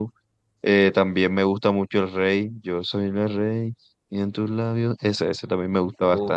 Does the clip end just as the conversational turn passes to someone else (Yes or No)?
No